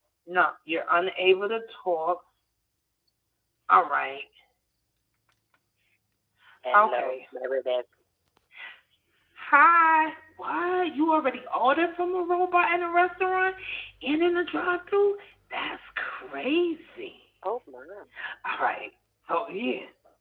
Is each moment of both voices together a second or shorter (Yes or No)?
Yes